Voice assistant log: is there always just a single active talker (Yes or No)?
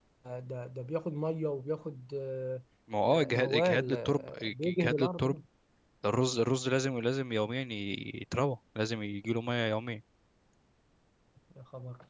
No